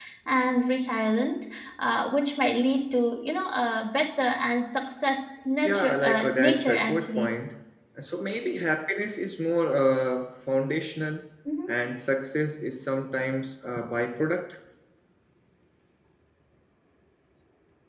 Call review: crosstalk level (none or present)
present